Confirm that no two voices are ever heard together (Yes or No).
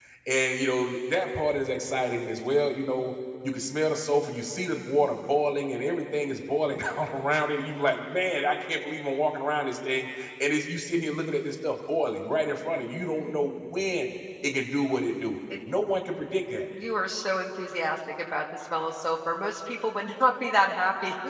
Yes